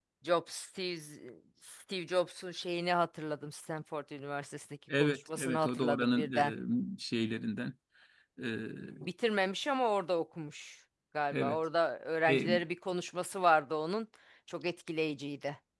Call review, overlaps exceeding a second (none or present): present